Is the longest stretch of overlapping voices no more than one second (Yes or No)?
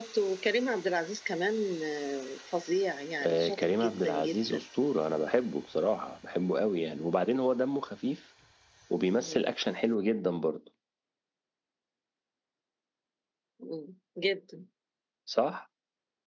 No